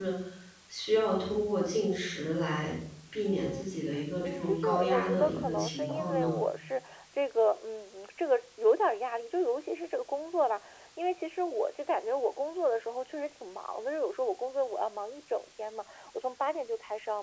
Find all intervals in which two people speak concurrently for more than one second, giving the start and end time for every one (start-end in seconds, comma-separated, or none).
4.2-6.3